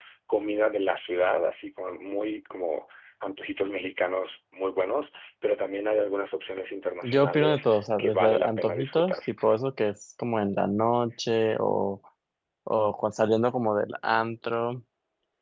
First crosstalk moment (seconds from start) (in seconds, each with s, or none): 7.0 s